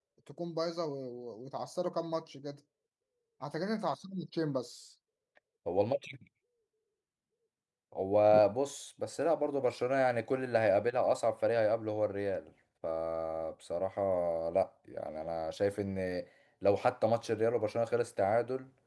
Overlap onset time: none

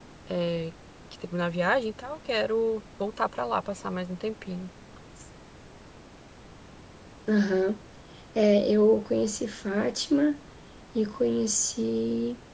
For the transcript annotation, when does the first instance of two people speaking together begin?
none

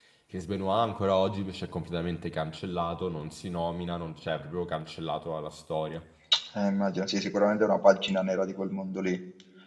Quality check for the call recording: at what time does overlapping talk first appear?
none

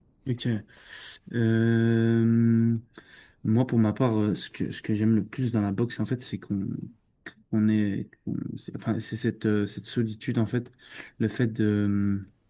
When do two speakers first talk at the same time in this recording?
none

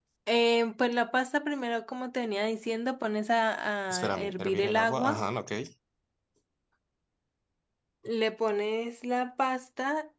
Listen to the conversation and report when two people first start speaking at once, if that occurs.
4 s

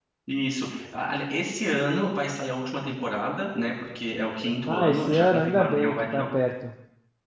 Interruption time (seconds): 5 s

